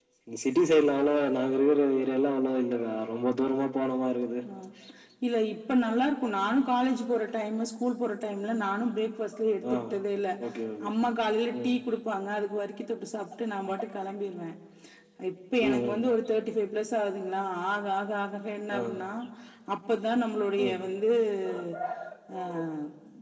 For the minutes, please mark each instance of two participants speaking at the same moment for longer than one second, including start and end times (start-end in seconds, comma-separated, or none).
none